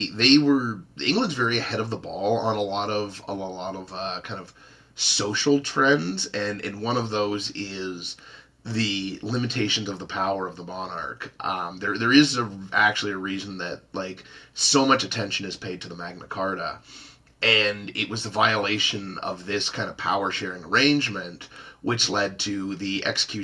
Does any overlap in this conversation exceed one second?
No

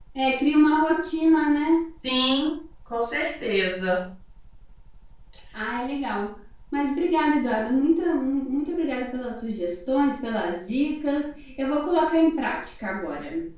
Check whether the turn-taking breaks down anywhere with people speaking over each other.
No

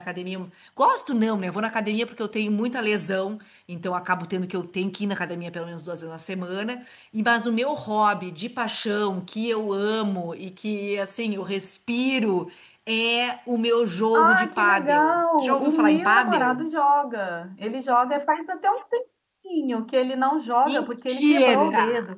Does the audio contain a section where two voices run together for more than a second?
Yes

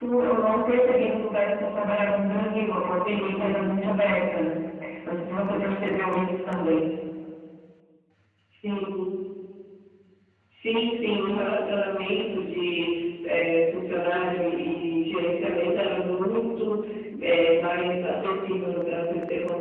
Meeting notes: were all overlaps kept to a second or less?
Yes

